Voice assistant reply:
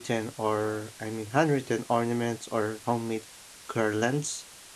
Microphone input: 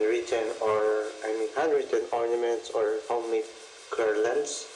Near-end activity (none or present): none